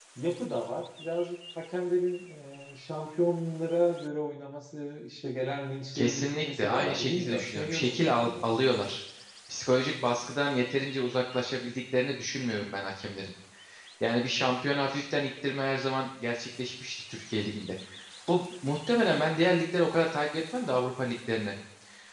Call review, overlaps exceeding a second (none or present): present